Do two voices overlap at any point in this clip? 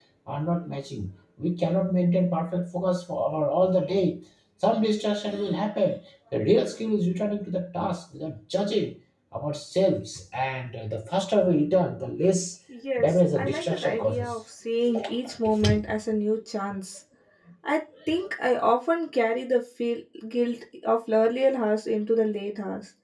Yes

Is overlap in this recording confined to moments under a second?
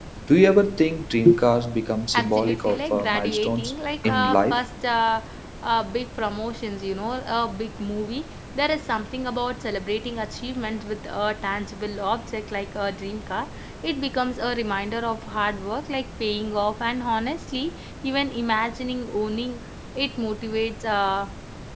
No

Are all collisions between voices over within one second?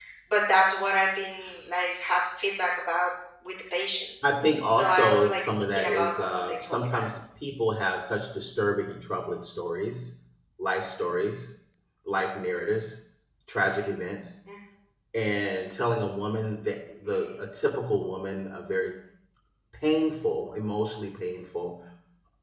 No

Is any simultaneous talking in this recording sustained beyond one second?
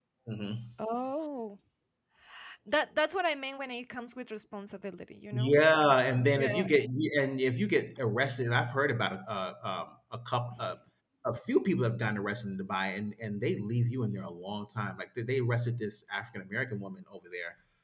No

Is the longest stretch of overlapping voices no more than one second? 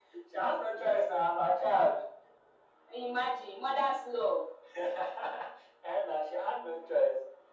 Yes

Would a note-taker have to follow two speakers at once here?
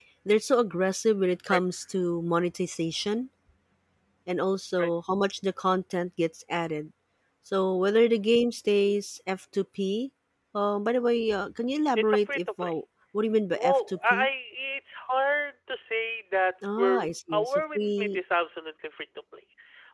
Yes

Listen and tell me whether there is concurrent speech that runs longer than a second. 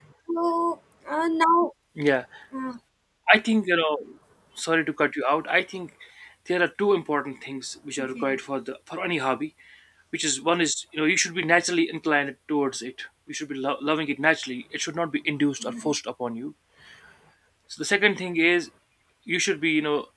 No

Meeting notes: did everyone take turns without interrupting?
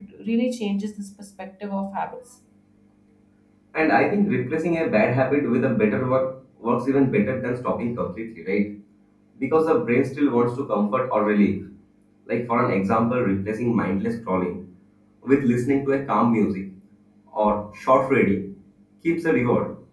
Yes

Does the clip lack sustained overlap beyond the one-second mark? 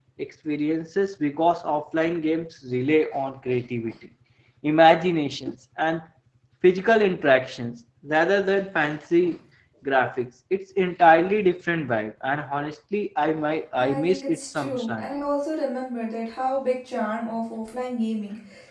No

